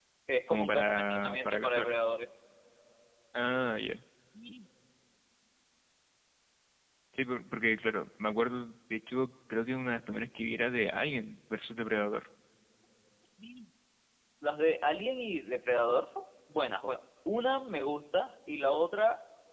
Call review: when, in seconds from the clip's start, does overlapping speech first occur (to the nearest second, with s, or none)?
1 s